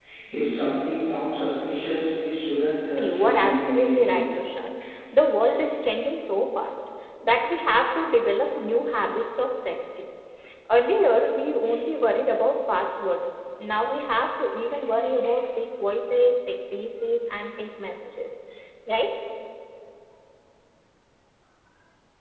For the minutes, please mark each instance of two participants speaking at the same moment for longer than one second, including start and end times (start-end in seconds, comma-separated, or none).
3.0-4.2